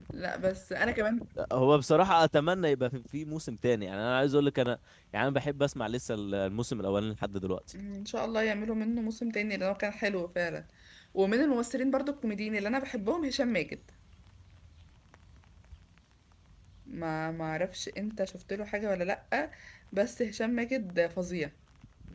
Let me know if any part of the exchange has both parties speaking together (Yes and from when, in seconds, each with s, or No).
No